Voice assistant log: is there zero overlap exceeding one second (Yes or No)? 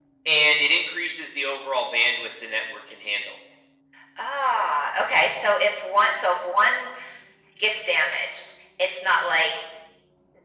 Yes